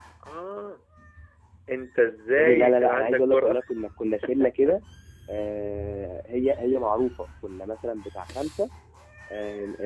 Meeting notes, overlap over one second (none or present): present